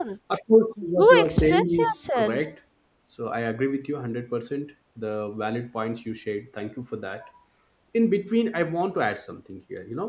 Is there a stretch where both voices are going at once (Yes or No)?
Yes